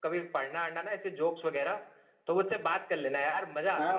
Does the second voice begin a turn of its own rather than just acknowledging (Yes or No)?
Yes